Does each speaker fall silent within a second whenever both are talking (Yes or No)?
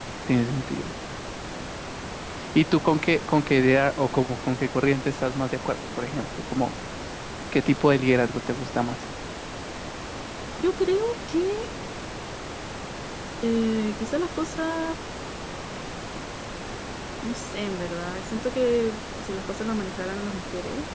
Yes